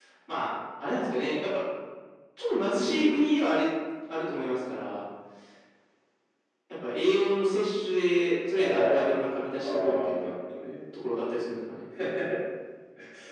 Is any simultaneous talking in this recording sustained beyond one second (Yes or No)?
Yes